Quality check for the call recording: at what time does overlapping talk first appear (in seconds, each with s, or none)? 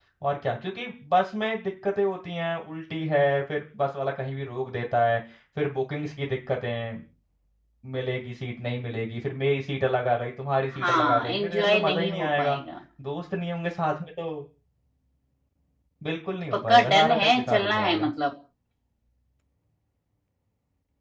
10.8 s